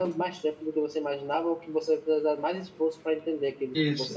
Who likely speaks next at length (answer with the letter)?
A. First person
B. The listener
B